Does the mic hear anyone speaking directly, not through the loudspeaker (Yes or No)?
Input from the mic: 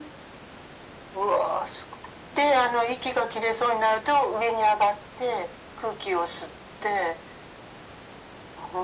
No